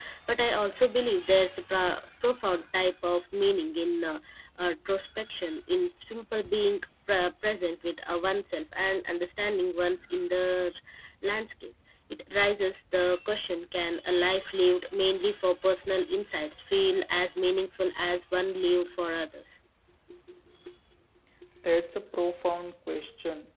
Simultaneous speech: No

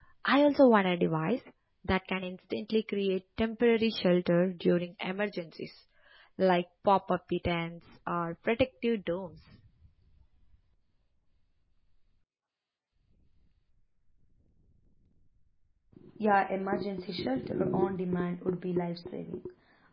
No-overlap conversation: Yes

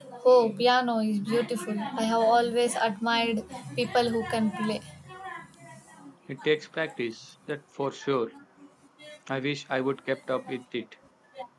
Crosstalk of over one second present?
No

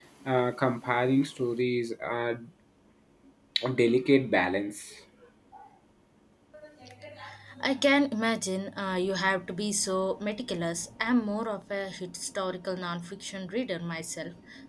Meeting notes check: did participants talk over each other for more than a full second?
No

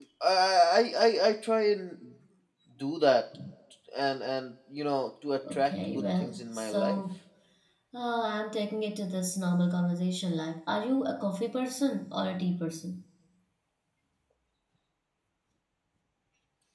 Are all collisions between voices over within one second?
No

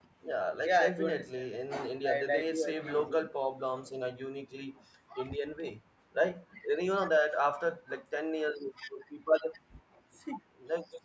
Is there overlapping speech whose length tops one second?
Yes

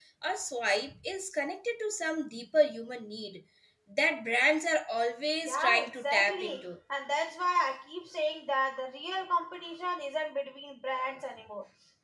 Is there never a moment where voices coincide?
No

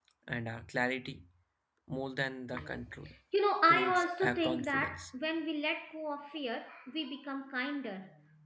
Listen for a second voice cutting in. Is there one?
Yes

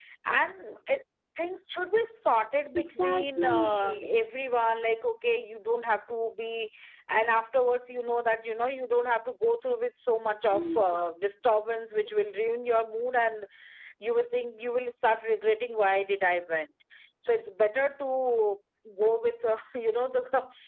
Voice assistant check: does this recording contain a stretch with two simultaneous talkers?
Yes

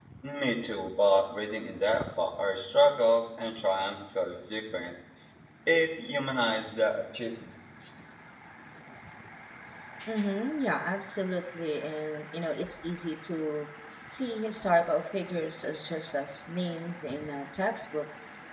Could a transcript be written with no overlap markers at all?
Yes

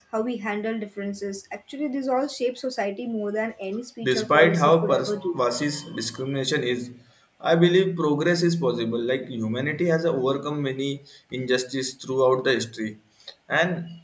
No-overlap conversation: No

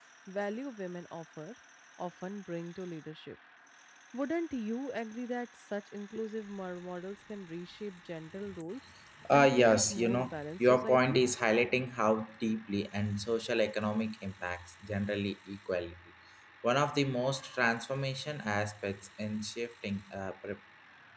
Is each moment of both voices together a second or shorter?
No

